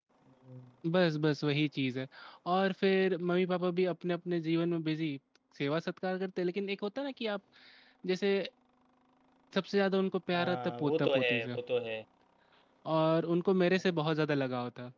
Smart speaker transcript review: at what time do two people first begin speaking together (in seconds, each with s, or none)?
10.3 s